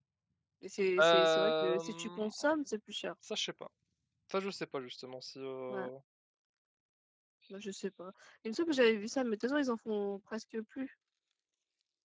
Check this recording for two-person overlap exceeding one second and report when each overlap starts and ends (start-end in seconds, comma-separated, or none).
1.0-2.3